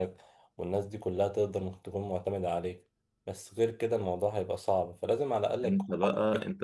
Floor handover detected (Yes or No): Yes